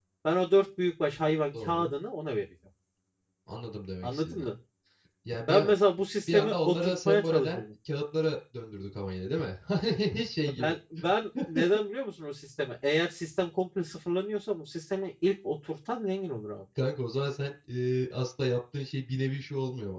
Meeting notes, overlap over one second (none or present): present